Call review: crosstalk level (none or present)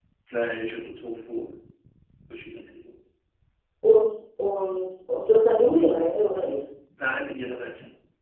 none